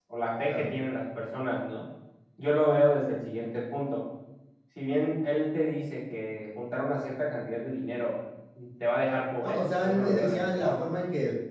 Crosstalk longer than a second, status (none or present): present